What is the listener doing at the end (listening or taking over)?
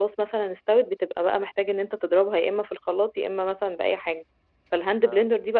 listening